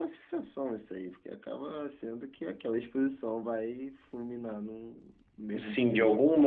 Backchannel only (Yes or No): No